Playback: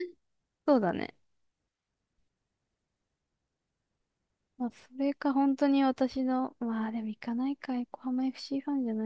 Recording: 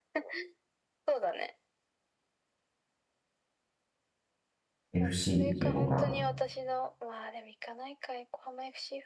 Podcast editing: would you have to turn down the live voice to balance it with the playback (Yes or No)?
Yes